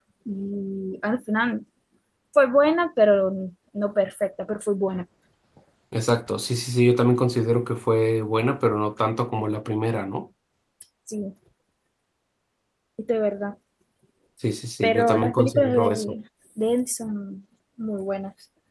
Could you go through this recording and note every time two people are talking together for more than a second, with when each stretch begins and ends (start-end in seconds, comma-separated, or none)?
14.8-16.1